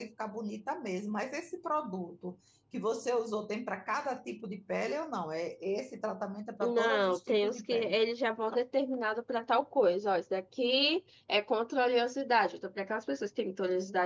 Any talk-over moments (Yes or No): Yes